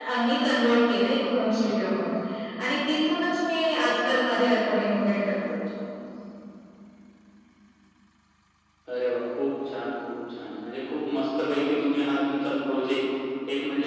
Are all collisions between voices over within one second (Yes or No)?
Yes